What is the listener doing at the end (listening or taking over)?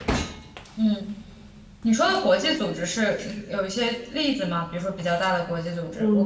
taking over